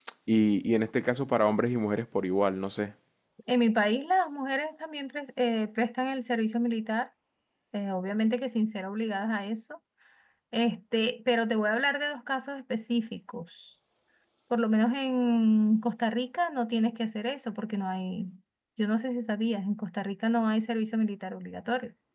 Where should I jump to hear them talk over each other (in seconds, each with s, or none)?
none